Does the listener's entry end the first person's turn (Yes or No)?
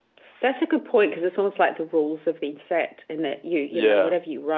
No